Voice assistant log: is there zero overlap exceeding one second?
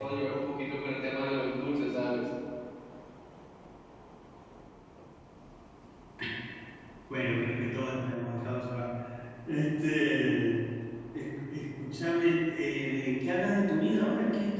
Yes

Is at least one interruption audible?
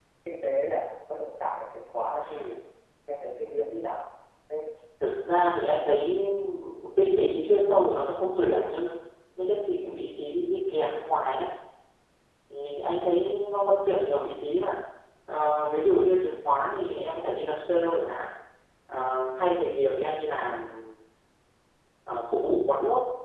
No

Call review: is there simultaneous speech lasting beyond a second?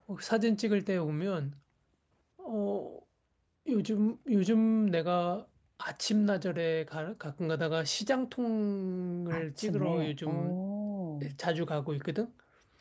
Yes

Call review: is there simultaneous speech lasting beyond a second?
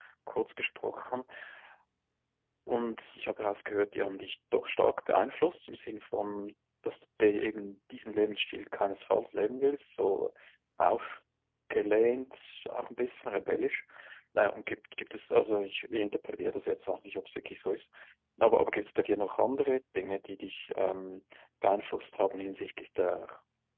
No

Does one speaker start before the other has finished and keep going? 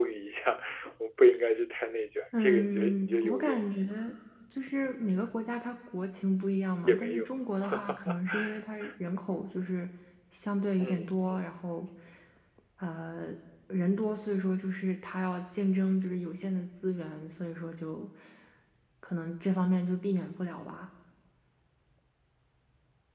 Yes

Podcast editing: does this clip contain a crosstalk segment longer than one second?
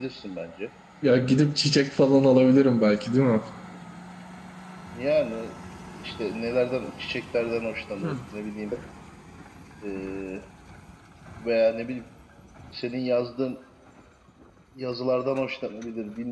No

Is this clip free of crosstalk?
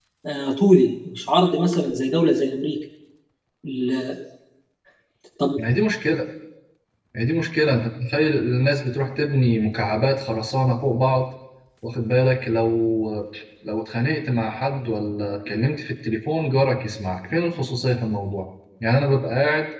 Yes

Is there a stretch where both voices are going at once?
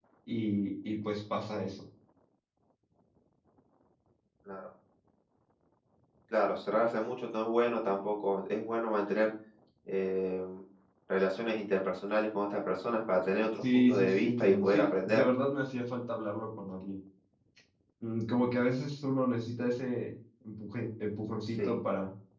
Yes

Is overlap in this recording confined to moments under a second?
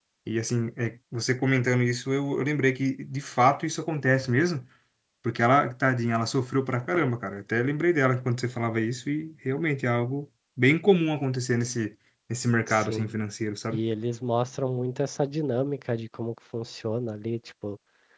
Yes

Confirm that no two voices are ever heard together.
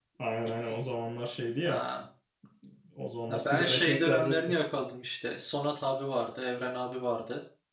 No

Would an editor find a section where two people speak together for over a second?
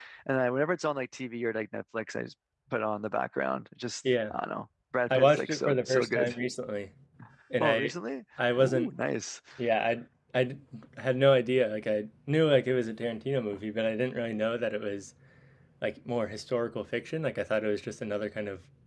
Yes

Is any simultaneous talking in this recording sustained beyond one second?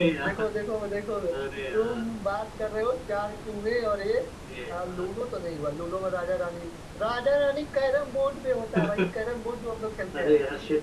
No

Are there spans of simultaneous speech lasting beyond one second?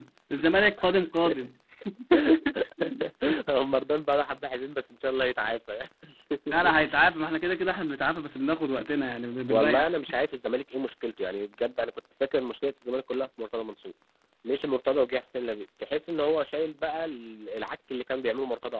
No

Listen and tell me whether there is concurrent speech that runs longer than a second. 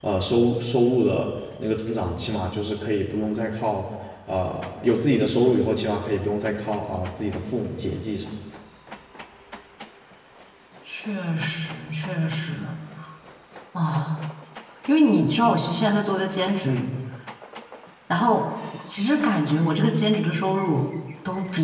No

